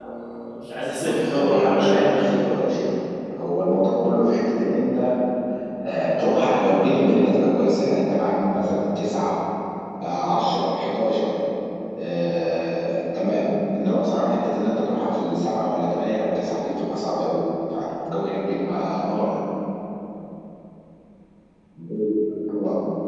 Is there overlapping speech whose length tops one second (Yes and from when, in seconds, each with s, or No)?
Yes, from 1.0 s